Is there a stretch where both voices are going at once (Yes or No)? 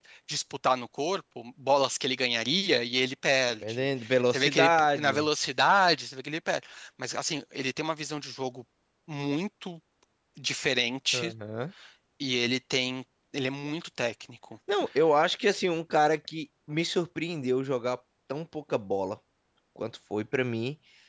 Yes